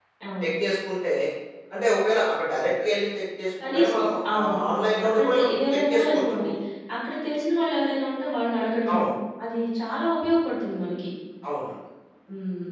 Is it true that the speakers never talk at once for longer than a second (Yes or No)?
No